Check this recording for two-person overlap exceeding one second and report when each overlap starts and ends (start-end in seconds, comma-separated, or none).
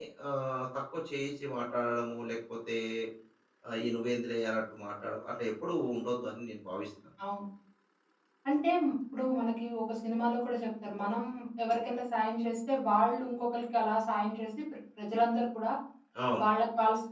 none